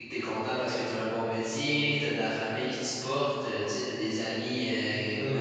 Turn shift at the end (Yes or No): No